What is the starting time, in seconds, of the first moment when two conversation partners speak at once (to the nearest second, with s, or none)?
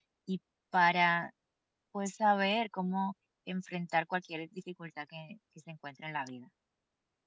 none